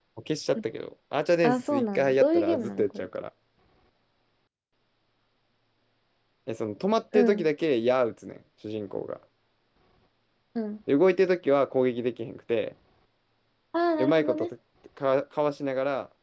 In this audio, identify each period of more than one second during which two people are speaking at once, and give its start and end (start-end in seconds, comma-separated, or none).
1.4-3.1